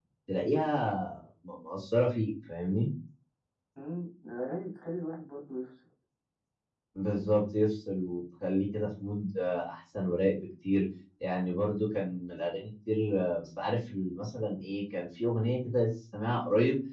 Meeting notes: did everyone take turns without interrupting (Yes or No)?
Yes